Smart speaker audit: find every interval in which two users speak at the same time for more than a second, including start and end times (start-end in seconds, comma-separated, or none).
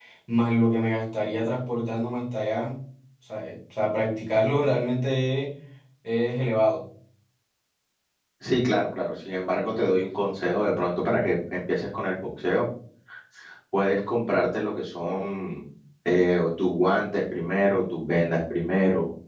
none